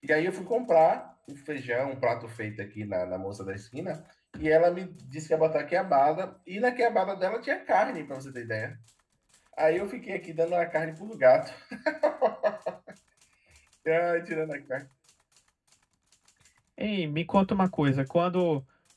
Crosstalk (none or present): none